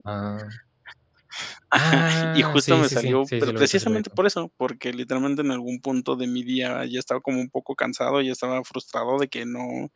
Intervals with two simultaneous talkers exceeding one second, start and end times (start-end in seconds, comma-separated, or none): 1.7-4.0